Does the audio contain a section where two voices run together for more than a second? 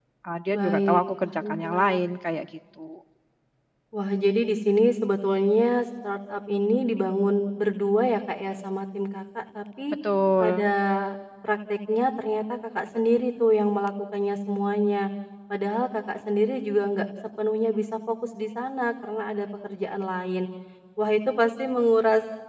Yes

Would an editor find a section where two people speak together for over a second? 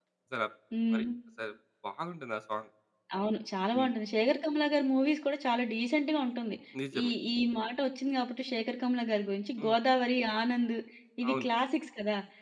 No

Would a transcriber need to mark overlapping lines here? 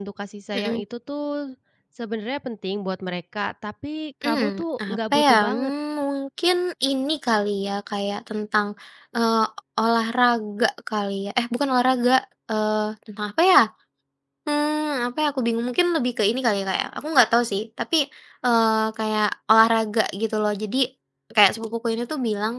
Yes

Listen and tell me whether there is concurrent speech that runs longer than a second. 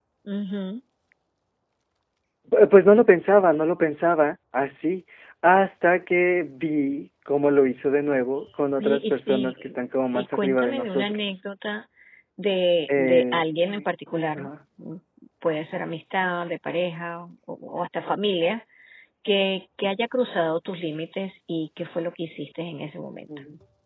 Yes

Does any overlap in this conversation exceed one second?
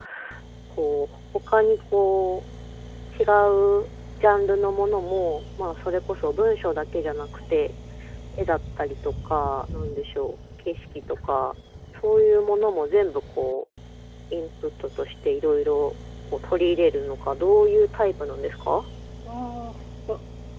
No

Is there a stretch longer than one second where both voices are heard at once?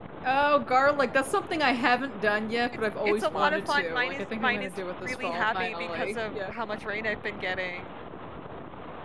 Yes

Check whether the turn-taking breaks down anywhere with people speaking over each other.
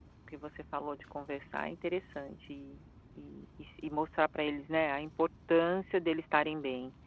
No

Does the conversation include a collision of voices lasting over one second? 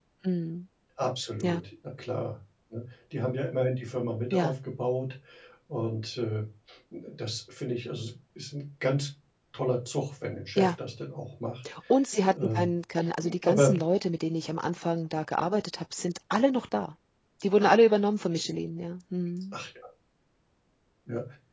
No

